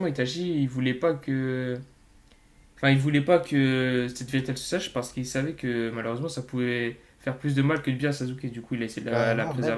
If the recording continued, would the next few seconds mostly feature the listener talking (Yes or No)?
Yes